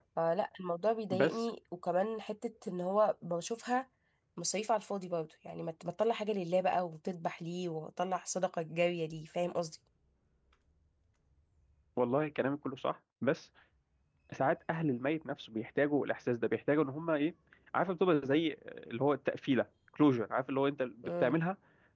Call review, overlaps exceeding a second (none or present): none